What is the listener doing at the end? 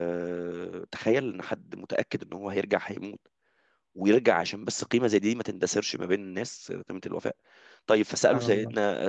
listening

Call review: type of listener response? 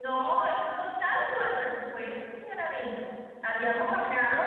listening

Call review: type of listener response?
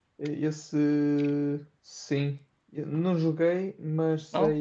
listening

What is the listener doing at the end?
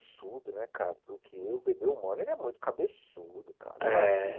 listening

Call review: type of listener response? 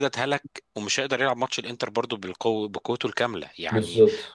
listening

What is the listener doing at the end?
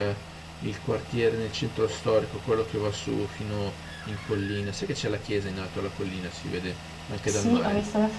taking over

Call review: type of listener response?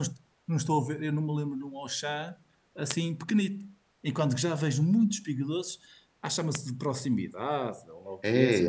taking over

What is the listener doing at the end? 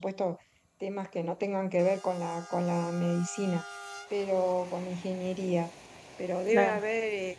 listening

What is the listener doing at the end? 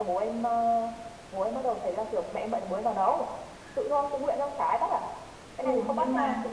taking over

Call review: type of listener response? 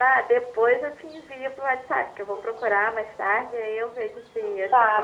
taking over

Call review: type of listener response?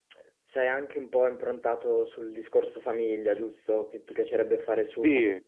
taking over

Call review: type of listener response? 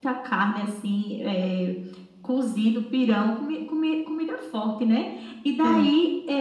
listening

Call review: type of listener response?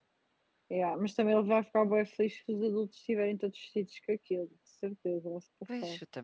taking over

